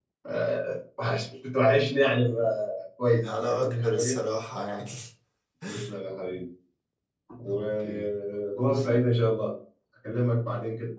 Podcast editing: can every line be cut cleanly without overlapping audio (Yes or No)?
No